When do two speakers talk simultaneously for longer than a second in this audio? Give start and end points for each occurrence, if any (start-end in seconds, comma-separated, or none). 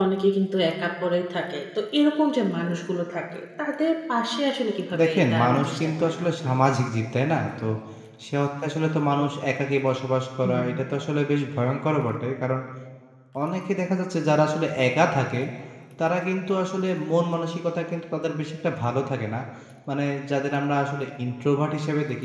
5.0-6.5